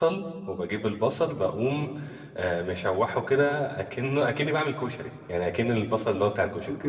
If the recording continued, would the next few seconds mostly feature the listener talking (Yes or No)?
Yes